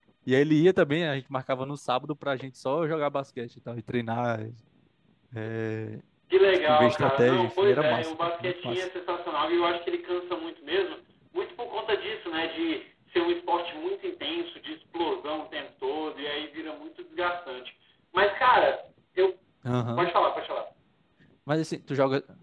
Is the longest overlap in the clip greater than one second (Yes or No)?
Yes